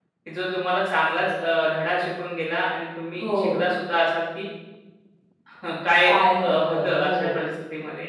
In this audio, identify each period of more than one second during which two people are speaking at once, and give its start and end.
6.0-7.4

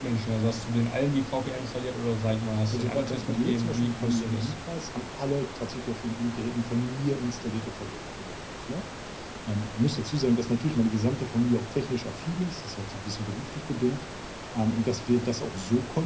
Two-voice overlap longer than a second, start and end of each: 2.7-4.5

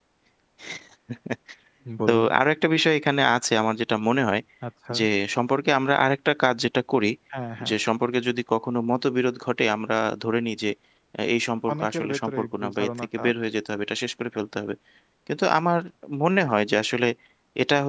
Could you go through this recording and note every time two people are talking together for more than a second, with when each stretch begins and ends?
11.7-13.3

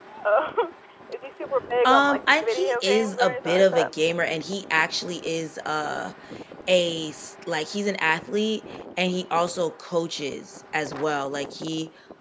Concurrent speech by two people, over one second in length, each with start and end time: 1.8-3.9

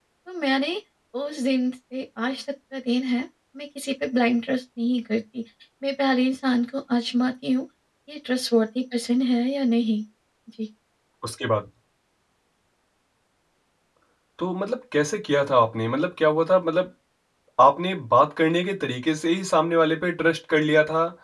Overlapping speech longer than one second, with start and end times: none

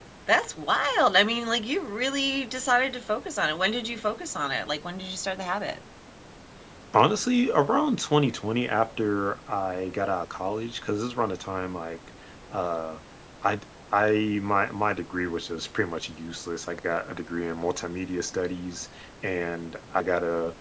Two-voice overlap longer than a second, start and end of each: none

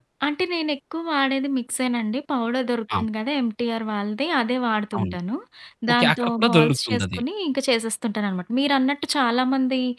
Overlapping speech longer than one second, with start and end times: 5.9-7.2

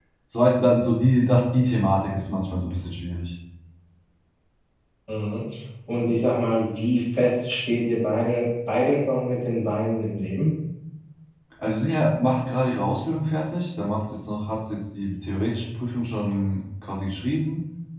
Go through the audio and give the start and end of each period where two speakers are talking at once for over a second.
none

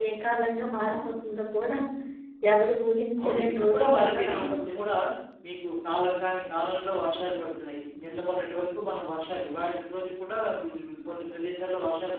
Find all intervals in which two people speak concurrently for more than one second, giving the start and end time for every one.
3.2-4.8

